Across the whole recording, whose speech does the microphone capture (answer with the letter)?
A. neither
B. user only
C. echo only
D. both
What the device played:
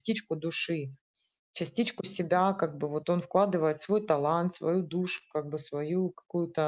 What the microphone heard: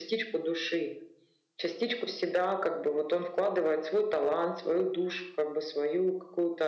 C